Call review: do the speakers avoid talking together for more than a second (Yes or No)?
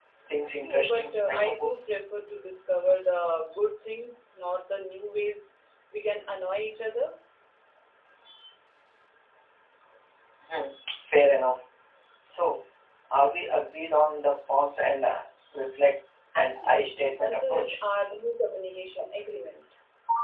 No